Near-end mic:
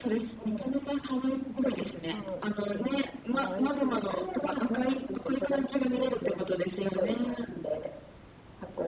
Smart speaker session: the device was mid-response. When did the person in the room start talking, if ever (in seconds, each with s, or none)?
2.1 s